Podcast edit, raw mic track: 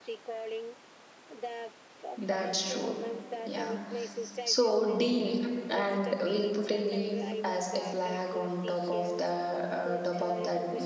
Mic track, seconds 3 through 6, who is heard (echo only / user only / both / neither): both